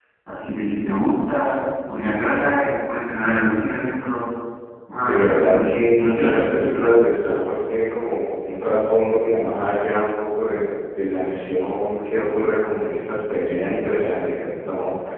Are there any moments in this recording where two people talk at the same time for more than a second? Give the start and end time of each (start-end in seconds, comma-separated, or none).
5.0-6.9